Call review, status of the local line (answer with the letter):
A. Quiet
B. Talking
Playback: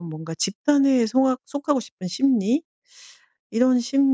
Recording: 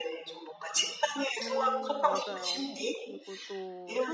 B